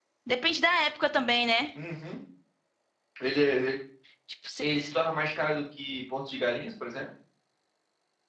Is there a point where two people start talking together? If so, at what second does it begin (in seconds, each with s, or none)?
none